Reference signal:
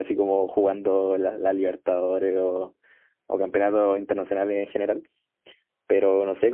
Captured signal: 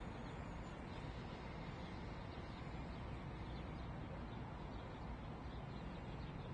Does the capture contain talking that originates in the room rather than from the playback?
No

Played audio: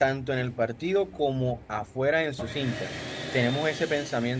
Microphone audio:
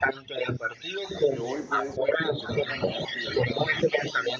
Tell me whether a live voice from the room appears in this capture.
Yes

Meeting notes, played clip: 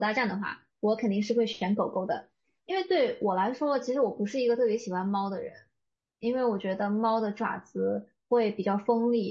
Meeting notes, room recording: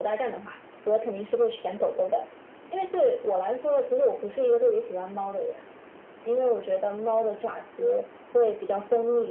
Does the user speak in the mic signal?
No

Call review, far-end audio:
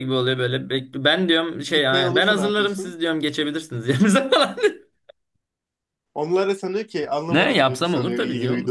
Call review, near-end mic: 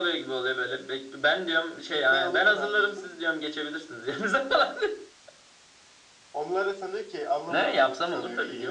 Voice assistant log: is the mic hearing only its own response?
Yes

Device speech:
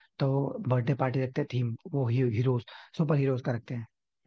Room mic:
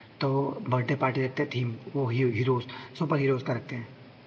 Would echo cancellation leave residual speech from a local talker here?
No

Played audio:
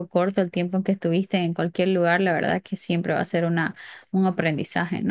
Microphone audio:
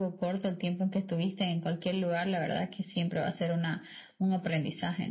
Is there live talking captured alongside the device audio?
No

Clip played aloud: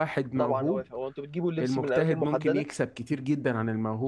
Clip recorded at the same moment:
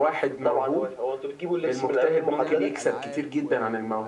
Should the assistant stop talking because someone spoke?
Yes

